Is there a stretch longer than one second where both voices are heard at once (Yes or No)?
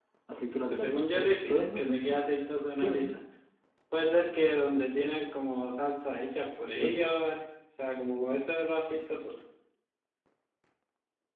Yes